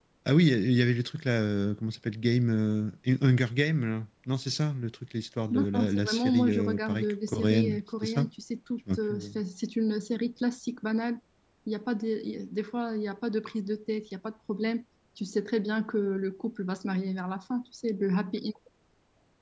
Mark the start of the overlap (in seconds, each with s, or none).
5.5 s